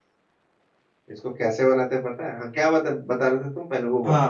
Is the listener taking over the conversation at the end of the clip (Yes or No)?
Yes